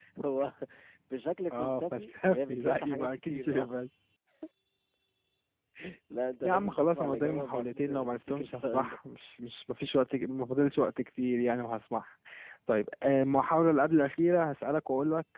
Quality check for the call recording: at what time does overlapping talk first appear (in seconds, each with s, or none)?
1.5 s